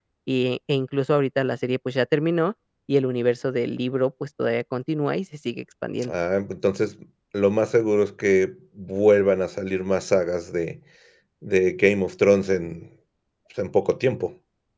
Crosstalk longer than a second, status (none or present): none